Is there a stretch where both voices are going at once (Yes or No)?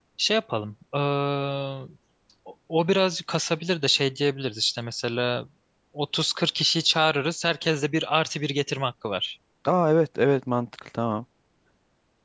No